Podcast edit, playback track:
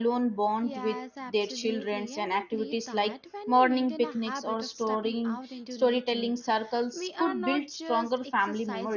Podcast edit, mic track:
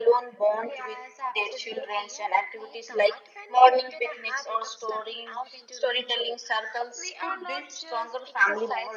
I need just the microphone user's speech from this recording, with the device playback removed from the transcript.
none

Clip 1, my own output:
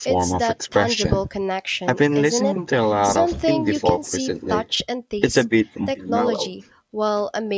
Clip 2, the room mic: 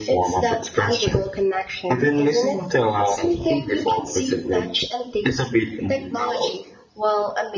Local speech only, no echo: none

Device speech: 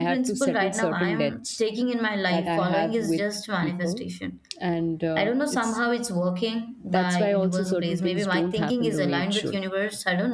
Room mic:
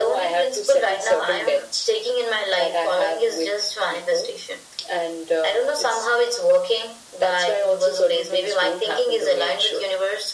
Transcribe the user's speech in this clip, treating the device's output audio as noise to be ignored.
none

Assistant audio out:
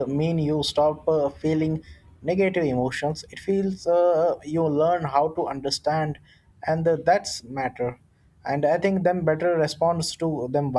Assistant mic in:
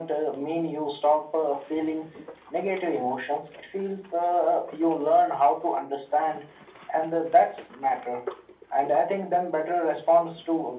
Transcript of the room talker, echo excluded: none

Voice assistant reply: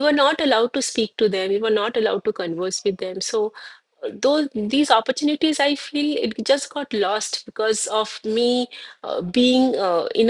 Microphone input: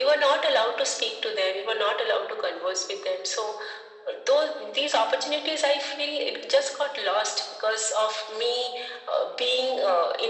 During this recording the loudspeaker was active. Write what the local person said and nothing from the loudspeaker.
none

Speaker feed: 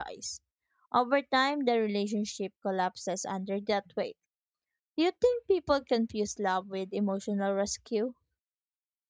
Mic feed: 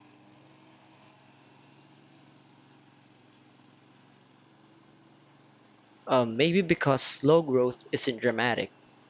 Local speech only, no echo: Uh, maybe because slow growth isn't dramatic.

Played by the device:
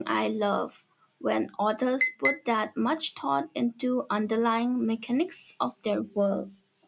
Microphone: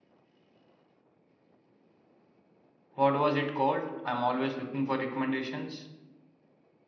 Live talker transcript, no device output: What was it called? I'm always looking for recommendations.

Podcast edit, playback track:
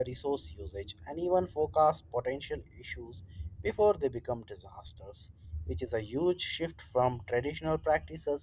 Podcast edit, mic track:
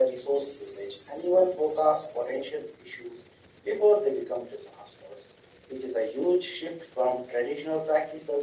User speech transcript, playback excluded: none

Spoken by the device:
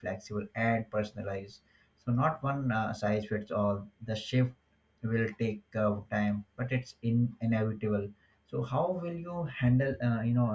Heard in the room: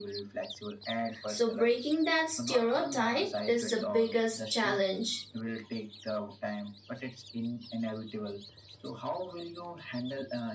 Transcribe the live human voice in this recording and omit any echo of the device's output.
So breaking that stereotype is the biggest challenge.

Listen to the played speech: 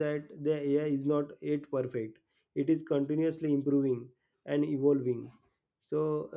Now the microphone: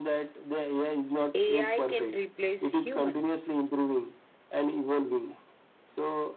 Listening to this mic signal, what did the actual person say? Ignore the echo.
AI can replace humans?

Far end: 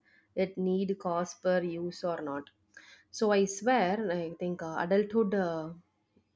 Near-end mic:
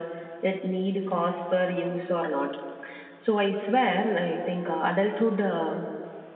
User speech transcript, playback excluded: none

